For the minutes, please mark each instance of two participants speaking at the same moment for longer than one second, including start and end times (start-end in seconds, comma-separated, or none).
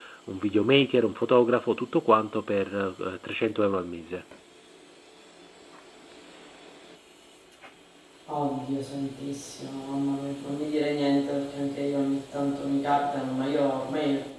none